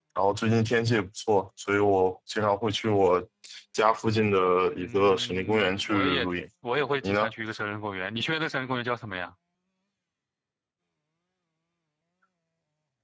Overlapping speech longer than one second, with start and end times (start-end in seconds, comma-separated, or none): 4.8-6.3